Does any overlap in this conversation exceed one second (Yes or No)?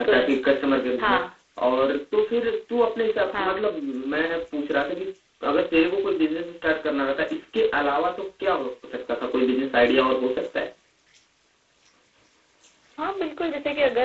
No